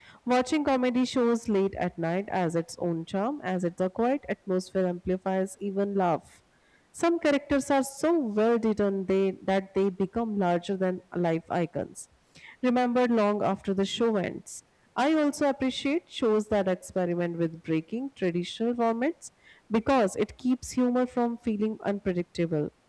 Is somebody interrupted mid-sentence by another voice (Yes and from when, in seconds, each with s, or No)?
No